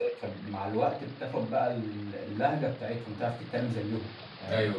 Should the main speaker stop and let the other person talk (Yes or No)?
Yes